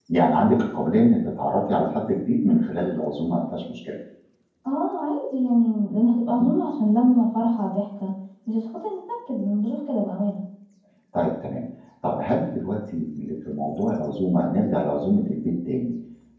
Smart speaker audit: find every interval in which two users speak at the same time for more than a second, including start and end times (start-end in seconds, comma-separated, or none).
none